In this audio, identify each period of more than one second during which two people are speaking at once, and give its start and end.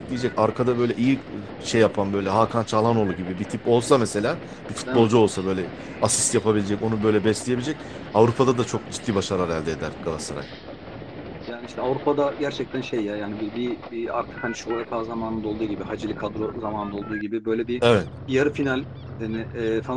none

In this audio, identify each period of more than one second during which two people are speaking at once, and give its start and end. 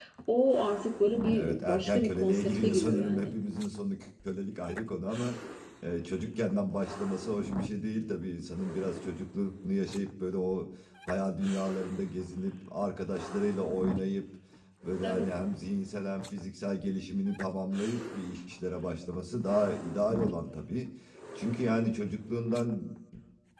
1.3-3.3

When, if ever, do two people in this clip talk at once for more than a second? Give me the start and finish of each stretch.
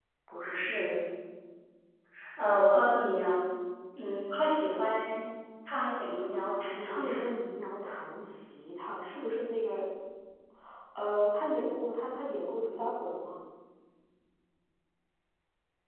none

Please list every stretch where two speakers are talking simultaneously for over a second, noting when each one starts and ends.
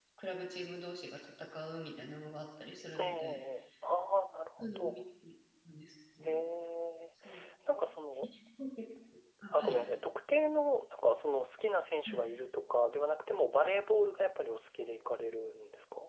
none

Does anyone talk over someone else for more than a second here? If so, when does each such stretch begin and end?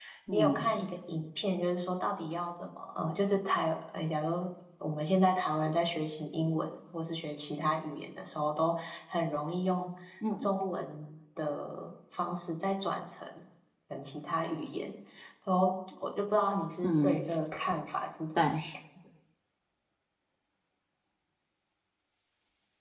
none

